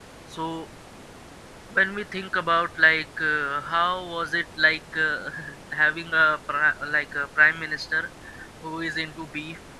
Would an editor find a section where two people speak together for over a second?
No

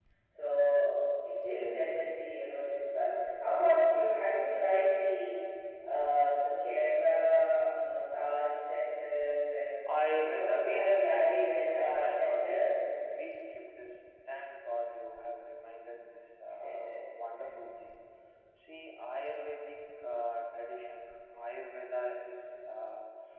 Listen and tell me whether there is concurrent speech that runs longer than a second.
Yes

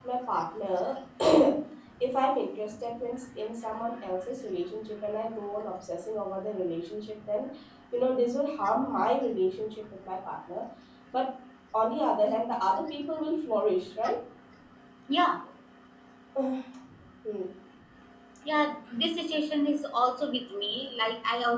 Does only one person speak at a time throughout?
Yes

